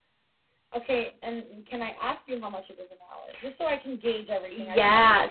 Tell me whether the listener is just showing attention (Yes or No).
No